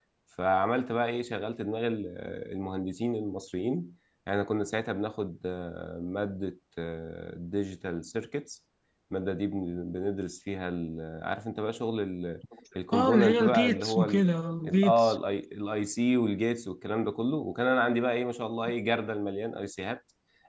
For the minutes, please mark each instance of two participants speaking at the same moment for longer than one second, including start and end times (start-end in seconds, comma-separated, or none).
12.9-14.2